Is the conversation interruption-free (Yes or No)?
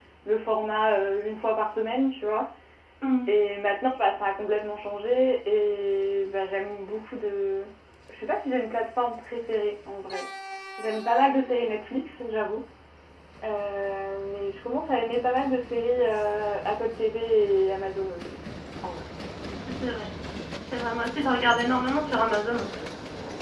Yes